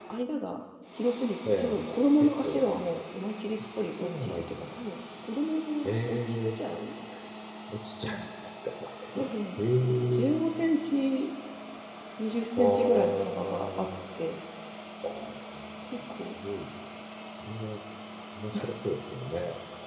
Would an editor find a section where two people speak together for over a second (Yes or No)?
Yes